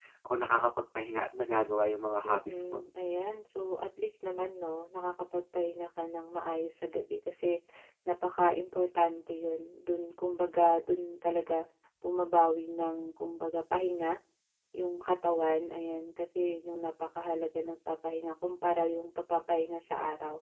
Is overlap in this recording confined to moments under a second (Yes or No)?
Yes